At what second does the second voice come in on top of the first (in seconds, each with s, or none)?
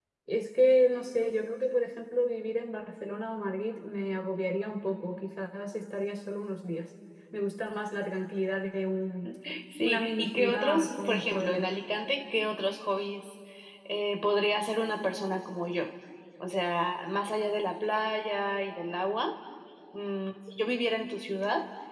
9.8 s